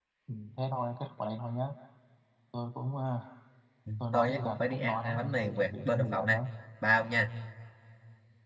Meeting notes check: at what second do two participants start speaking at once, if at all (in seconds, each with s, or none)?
4.1 s